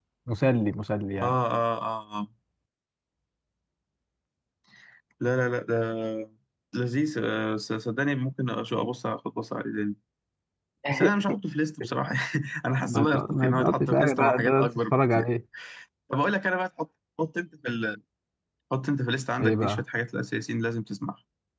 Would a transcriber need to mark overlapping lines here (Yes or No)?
Yes